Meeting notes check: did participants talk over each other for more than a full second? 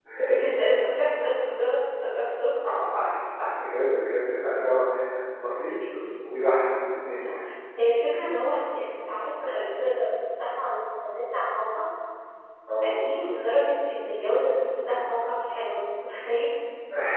No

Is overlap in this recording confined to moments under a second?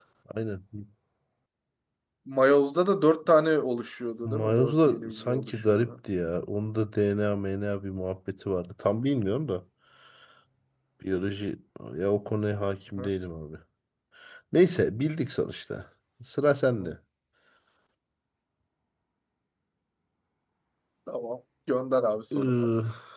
No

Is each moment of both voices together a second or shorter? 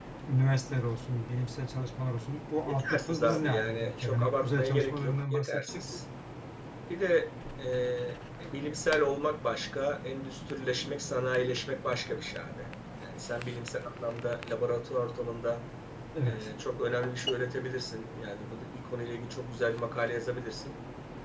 No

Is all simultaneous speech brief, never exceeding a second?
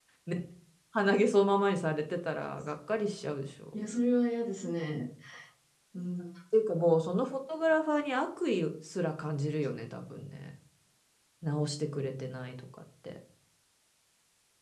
Yes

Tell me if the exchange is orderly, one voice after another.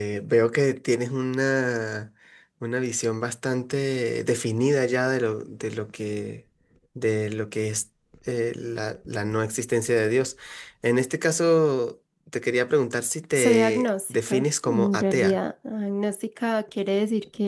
No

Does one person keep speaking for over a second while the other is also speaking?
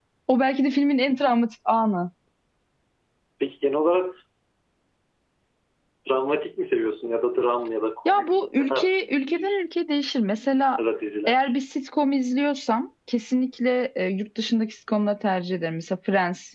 Yes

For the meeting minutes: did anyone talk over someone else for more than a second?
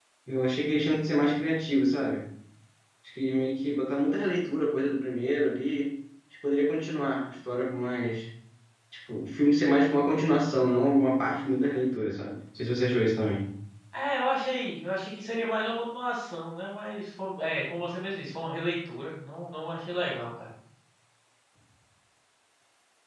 No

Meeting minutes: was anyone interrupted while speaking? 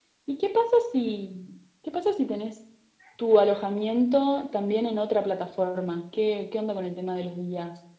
No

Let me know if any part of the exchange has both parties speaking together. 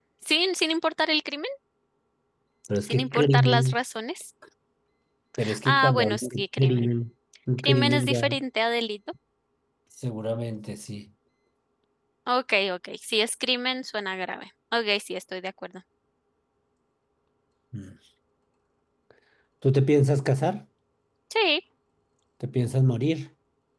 Yes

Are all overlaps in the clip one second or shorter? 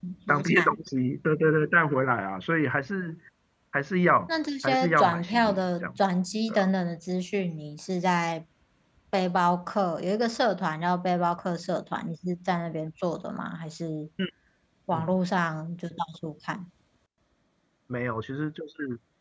No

